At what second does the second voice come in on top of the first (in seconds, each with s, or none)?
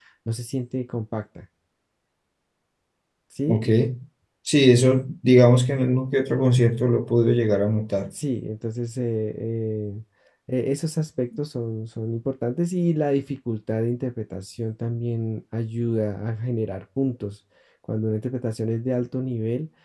none